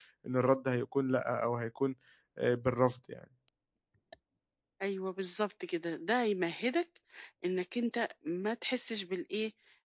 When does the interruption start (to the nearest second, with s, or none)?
none